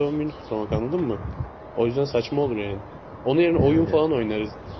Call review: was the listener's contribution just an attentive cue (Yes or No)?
Yes